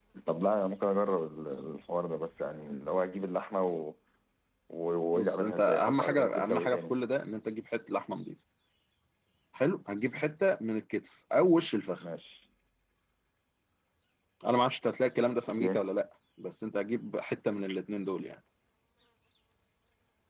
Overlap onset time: 5 s

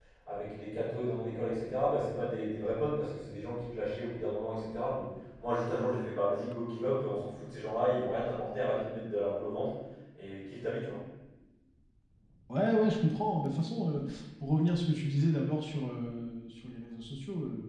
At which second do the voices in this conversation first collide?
none

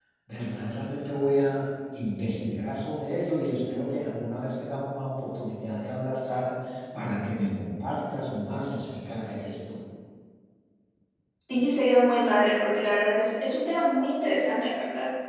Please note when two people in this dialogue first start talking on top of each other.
none

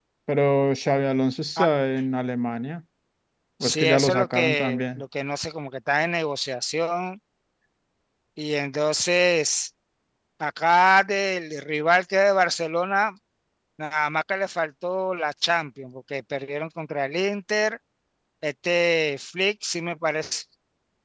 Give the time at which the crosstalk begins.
4 s

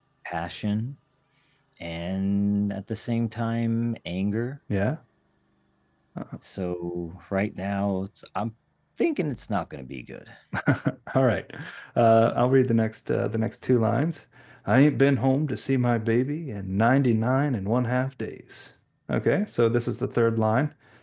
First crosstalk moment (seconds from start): none

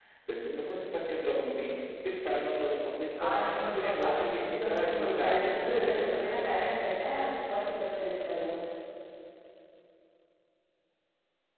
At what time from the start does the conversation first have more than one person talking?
3 s

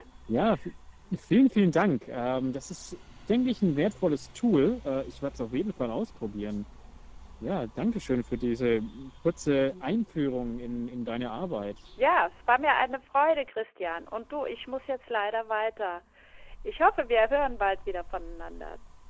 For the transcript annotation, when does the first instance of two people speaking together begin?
none

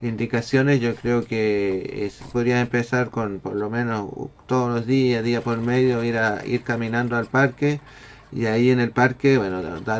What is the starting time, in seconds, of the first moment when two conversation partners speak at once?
none

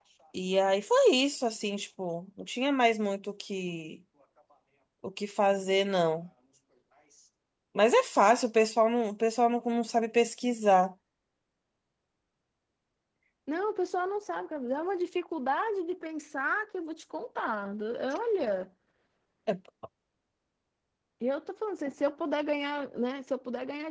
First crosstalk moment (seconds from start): none

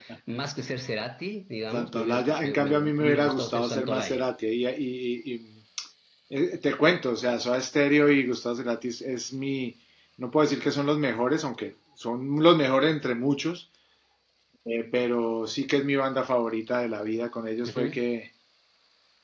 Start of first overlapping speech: 2 s

